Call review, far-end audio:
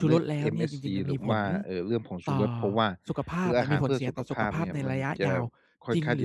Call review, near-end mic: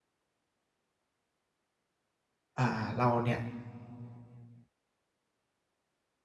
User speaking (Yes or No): Yes